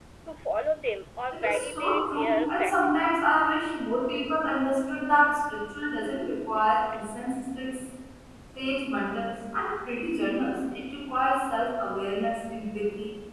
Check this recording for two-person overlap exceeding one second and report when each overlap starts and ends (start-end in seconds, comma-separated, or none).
1.3-3.4